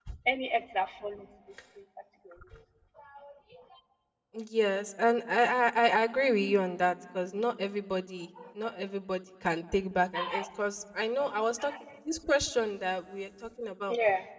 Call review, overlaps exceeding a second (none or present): none